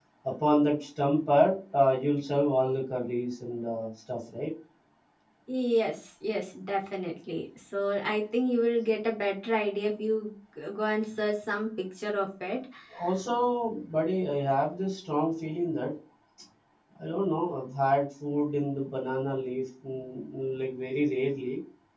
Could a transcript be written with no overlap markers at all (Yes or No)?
Yes